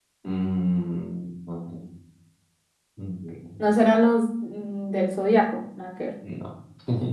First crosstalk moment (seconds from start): none

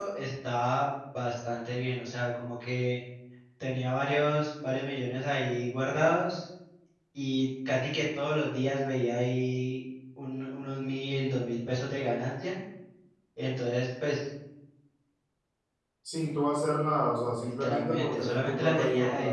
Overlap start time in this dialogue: 17.4 s

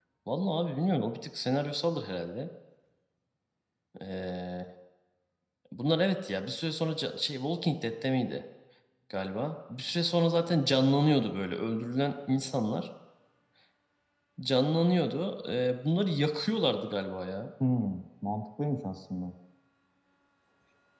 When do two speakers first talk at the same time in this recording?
none

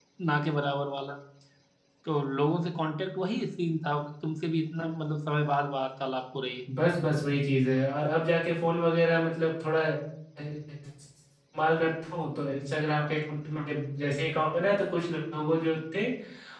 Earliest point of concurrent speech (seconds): none

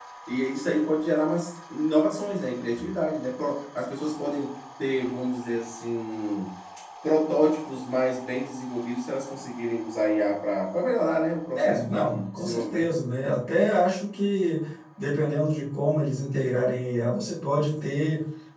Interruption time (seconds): 11.5 s

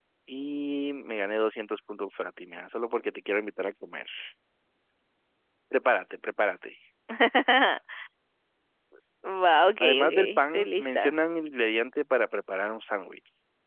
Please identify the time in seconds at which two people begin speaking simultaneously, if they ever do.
9.8 s

